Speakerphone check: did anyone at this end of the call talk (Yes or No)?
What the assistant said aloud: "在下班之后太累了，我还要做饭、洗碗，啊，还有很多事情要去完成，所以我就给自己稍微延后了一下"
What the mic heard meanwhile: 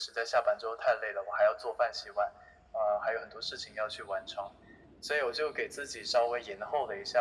No